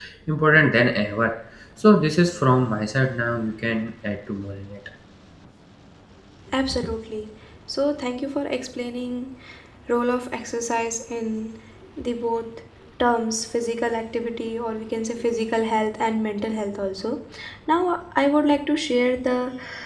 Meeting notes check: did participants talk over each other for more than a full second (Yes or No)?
No